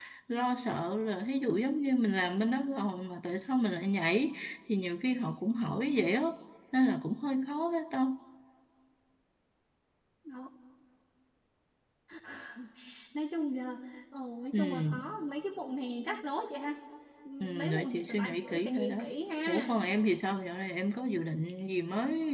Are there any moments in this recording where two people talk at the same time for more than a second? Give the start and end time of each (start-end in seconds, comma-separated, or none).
17.4-19.0